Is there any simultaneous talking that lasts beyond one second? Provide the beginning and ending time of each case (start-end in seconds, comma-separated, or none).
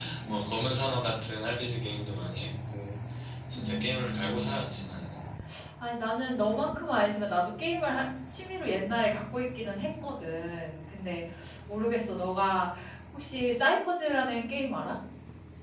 3.5-4.9